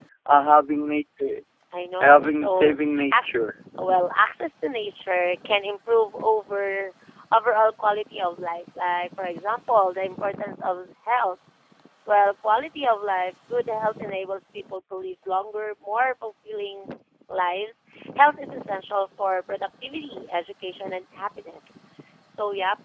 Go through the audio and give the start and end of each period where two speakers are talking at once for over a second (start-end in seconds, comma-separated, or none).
2.0-3.3